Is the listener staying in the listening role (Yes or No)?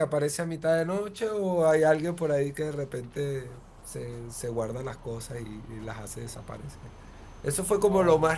Yes